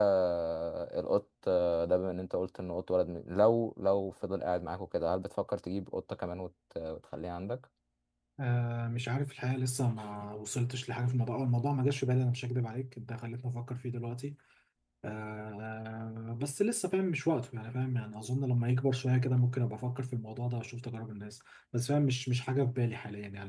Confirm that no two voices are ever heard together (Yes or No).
Yes